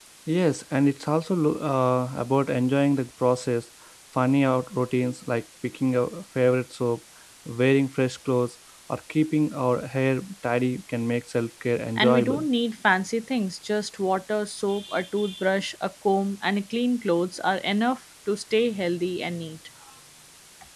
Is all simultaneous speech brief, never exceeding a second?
Yes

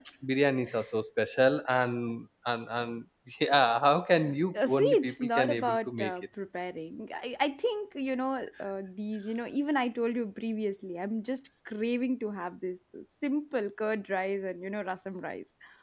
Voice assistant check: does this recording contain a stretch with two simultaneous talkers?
Yes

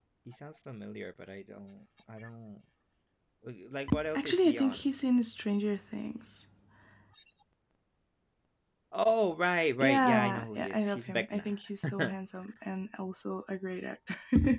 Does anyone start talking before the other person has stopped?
Yes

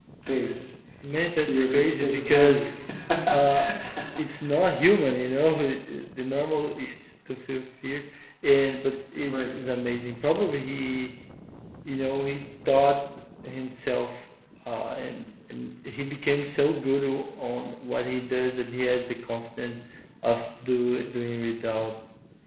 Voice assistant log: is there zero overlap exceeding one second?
No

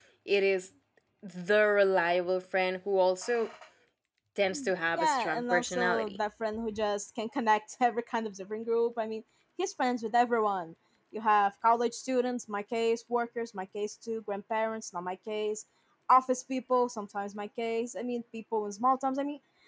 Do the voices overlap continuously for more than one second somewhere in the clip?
Yes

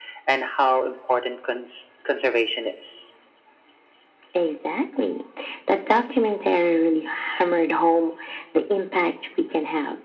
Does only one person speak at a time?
Yes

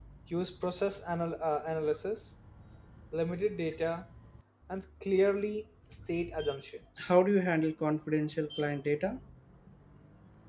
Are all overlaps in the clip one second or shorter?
Yes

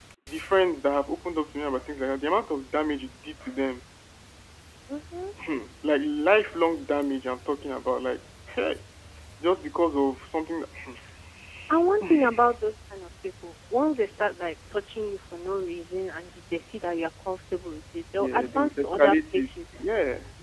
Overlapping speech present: Yes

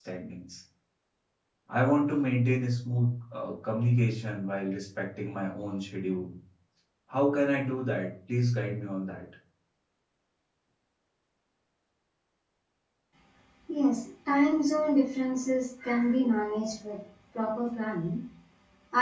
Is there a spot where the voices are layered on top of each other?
No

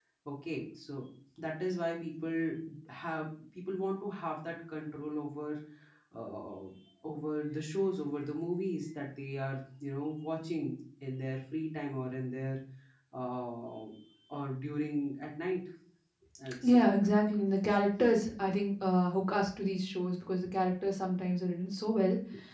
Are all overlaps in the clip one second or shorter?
Yes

